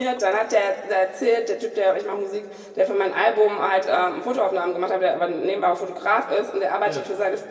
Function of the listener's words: listening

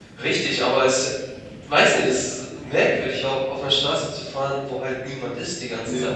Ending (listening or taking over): taking over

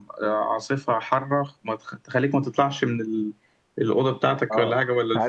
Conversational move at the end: taking over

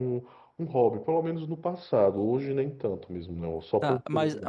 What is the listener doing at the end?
taking over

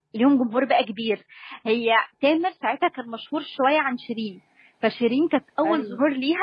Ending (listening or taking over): listening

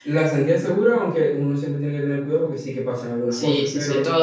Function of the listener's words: taking over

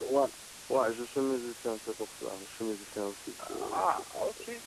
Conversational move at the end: taking over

